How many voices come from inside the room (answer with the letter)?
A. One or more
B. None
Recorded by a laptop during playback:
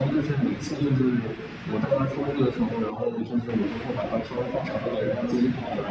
B